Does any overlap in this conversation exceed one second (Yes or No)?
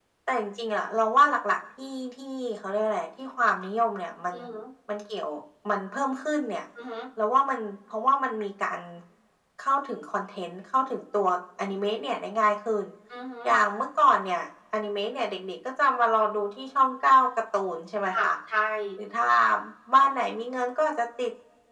No